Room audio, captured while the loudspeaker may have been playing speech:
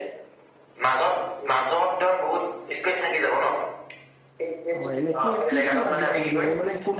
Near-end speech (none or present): present